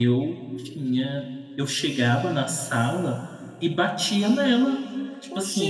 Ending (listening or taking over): listening